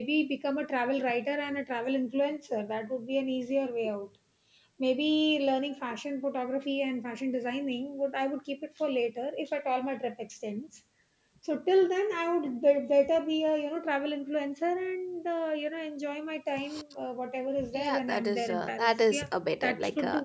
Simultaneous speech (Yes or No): Yes